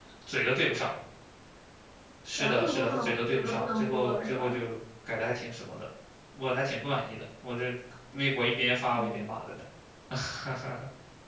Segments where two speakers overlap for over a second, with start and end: 2.3-4.6

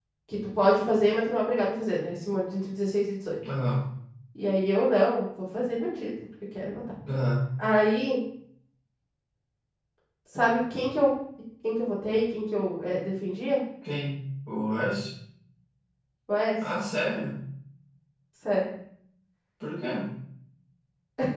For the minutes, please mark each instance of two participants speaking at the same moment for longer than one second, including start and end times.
none

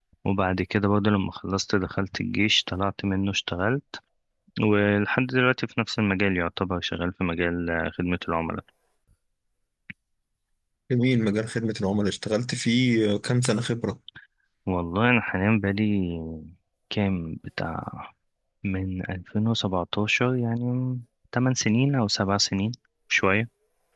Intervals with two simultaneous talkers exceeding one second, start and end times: none

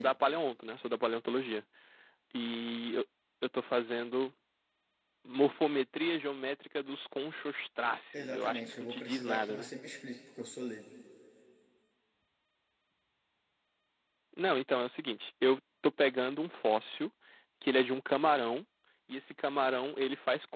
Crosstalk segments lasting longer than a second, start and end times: 8.1-9.7

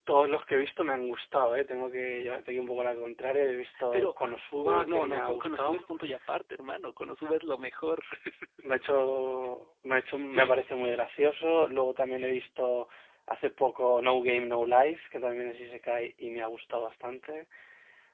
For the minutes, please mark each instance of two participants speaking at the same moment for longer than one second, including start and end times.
3.9-5.8

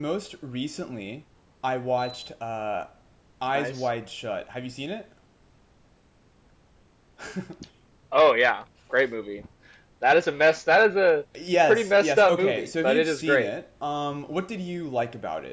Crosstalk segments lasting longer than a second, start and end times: 11.6-13.5

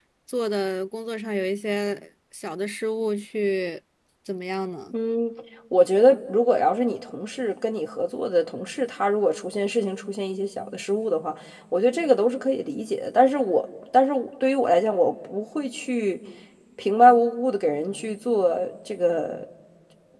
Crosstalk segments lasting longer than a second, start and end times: none

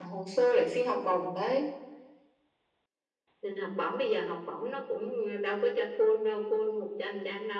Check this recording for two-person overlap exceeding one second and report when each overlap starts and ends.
none

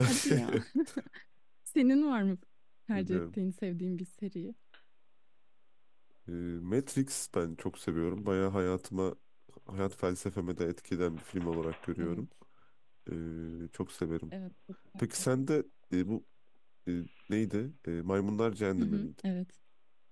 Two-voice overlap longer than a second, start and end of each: none

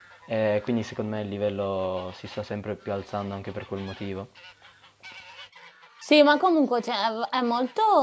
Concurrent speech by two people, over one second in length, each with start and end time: none

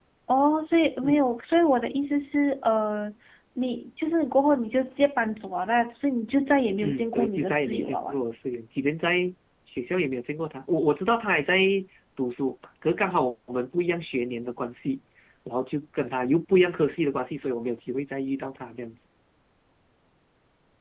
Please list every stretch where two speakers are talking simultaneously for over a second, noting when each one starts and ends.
6.8-8.2

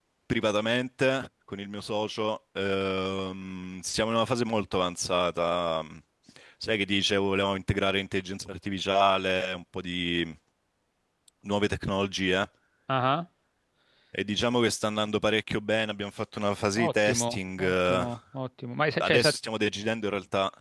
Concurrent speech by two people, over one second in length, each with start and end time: 16.8-18.1

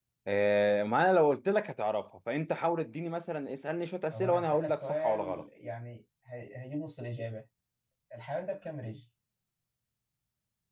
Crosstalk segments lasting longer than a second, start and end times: 4.1-5.4

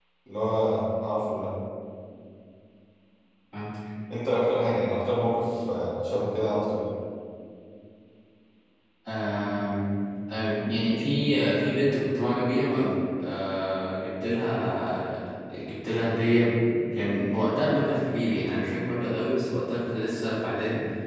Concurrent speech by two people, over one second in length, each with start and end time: none

